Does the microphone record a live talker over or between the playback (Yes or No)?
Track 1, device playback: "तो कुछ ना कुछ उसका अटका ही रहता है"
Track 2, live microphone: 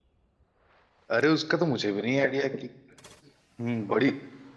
Yes